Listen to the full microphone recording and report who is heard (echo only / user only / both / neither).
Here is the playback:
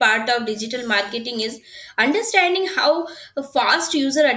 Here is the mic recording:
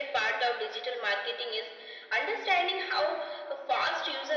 echo only